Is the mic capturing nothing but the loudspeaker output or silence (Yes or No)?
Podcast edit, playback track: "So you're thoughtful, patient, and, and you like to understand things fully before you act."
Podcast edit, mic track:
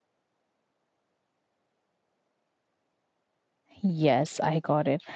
No